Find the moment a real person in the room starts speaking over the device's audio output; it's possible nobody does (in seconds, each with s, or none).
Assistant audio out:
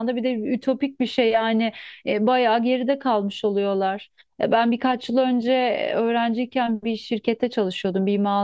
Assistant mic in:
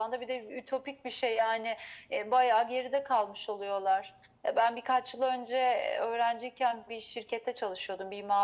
none